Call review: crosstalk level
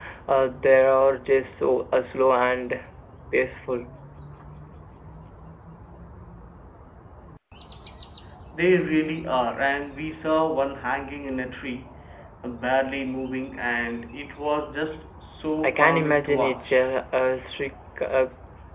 present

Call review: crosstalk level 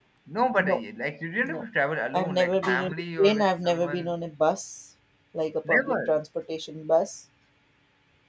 present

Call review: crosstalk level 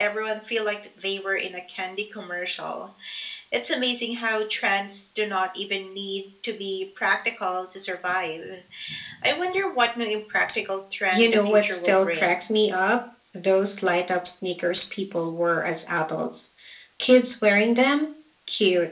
present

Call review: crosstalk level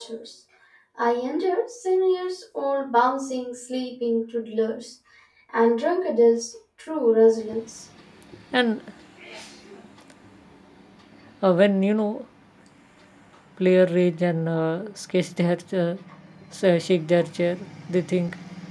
none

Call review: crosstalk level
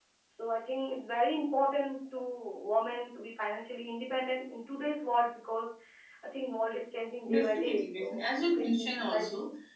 present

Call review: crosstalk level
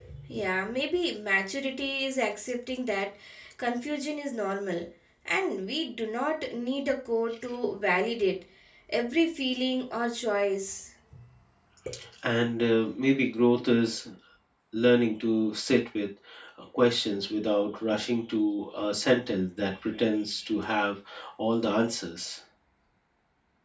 none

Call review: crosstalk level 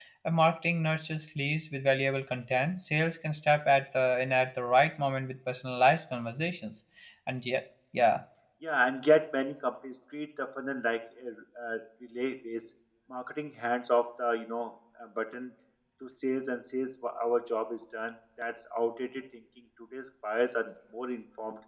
none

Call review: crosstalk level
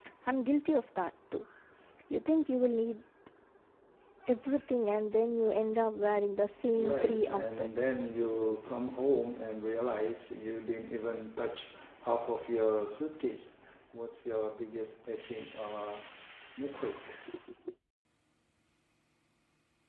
present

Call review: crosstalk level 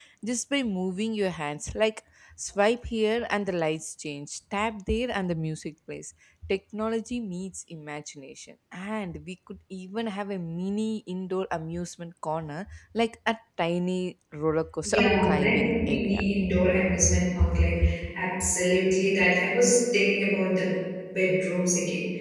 present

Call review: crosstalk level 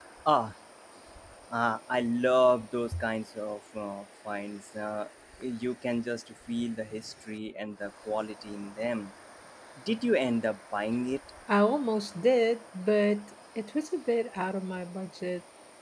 none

